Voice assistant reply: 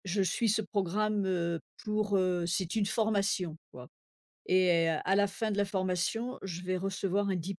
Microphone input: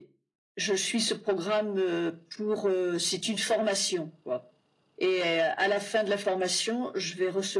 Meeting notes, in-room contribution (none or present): none